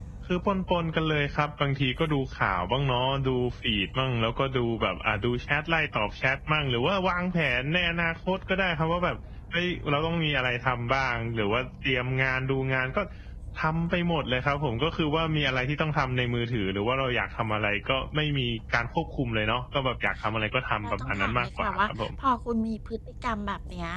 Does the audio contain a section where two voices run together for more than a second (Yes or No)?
Yes